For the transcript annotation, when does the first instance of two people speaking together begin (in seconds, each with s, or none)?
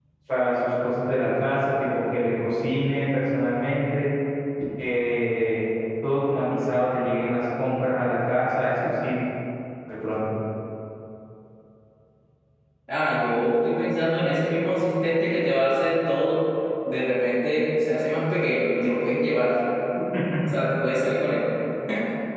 none